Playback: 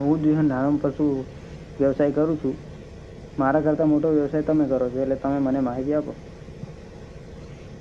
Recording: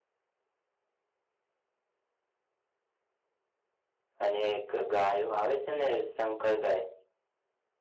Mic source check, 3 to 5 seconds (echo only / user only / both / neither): user only